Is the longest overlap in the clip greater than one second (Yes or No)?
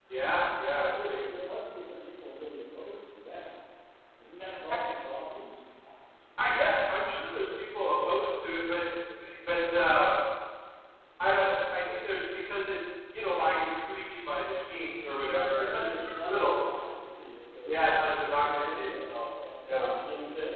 Yes